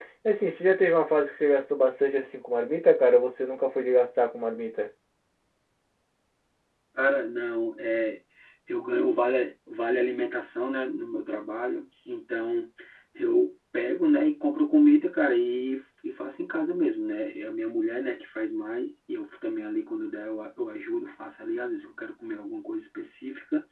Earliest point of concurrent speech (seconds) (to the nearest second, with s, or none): none